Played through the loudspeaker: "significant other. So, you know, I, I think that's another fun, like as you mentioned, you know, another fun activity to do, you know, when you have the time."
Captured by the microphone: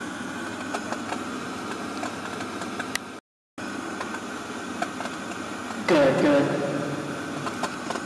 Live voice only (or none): Good, good.